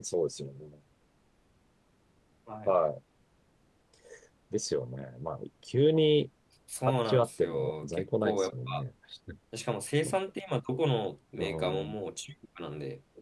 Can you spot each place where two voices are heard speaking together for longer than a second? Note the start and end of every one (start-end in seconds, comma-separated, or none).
6.8-8.8